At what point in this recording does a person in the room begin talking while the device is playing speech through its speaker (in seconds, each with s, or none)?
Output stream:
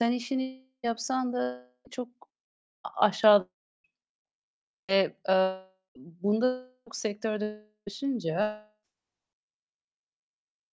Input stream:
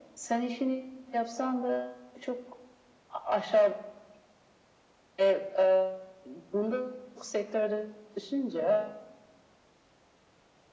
none